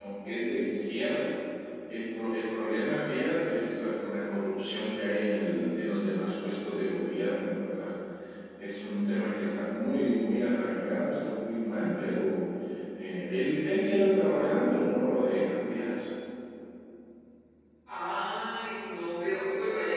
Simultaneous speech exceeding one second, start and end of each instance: none

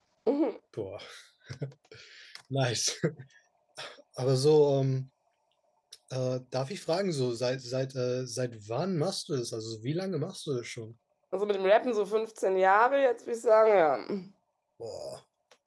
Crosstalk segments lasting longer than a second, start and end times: none

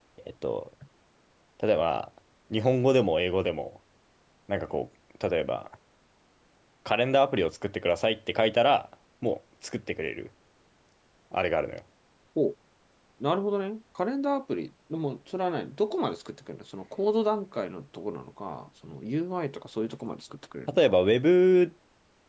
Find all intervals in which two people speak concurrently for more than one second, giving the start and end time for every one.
none

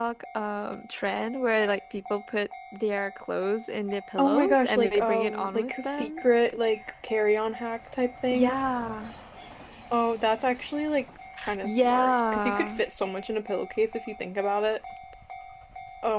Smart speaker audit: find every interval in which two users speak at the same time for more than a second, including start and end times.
4.2-6.2, 11.6-12.8

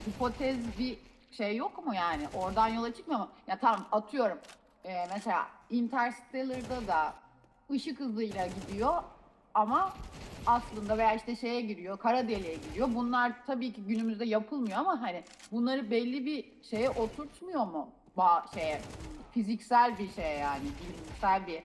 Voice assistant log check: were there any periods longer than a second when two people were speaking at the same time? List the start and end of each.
none

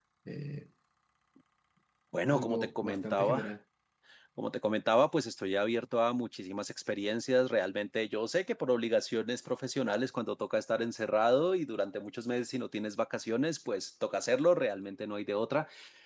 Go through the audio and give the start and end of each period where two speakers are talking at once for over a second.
2.3-3.5

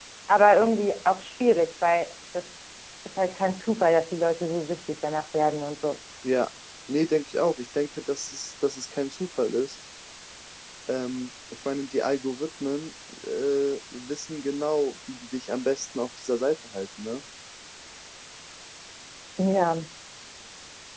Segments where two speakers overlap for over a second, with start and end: none

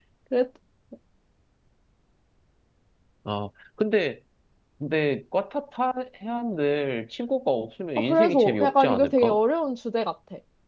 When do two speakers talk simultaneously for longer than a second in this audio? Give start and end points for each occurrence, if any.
8.0-9.4

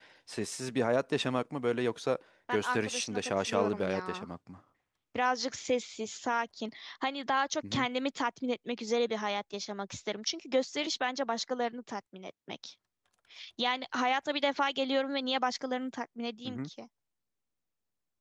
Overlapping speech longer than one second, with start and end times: 2.5-4.3

